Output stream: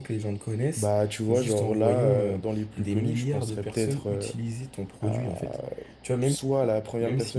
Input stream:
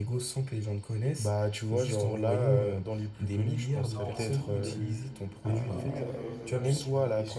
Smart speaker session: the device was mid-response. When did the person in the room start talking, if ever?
3.9 s

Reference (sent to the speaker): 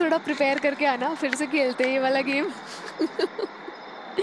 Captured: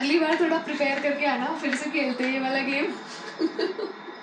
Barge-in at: none

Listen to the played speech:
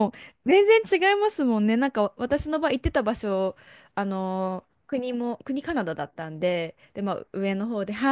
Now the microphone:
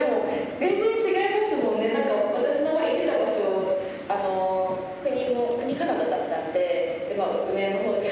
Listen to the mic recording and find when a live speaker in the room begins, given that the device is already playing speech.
none

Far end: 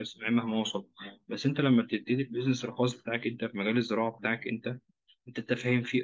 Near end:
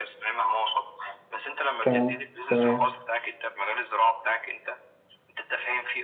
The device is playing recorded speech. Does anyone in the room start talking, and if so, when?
1.8 s

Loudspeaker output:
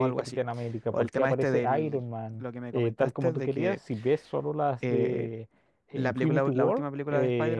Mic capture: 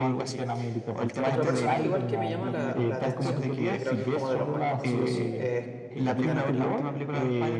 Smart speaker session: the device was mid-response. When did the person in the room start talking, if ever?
1.2 s

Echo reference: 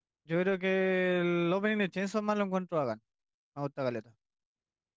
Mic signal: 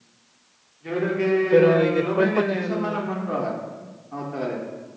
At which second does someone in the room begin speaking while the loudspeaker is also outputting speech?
1.5 s

